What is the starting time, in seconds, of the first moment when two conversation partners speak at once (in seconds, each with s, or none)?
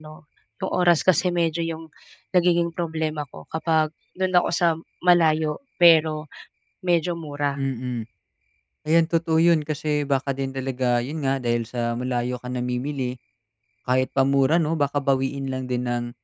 none